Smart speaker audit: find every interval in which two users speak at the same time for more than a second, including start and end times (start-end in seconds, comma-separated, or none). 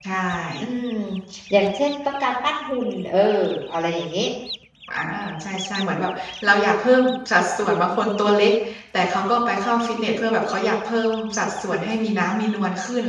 none